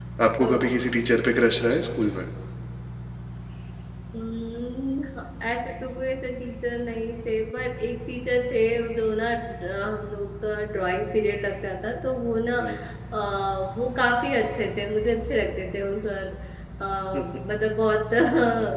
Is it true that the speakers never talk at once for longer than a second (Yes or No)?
Yes